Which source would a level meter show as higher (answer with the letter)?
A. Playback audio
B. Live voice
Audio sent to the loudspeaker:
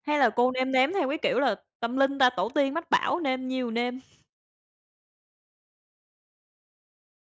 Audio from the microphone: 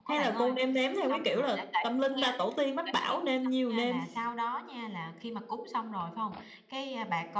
A